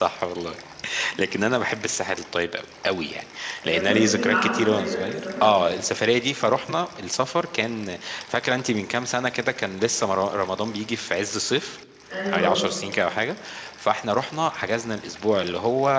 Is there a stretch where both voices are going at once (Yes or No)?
Yes